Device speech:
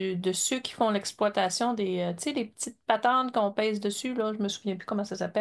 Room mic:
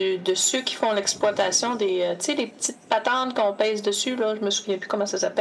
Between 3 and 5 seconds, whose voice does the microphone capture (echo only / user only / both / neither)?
echo only